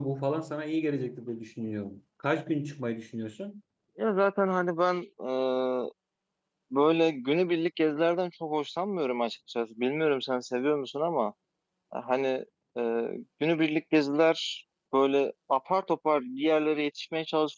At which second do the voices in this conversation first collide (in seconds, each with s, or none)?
none